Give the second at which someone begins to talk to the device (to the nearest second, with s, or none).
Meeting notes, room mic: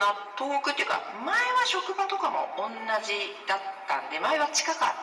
none